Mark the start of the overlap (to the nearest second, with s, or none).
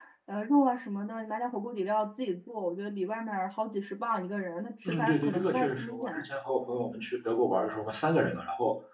5 s